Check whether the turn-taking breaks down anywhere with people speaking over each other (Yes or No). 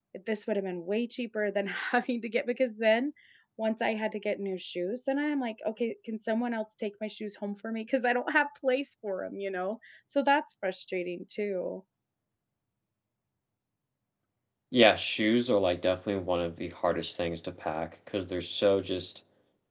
No